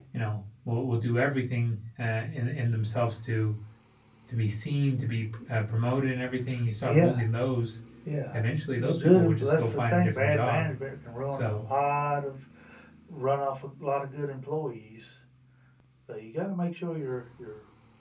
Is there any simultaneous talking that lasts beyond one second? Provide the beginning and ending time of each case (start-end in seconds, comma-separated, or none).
8.8-10.7